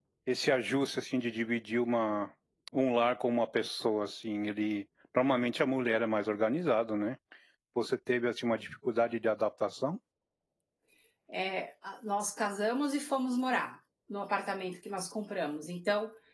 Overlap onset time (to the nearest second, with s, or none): none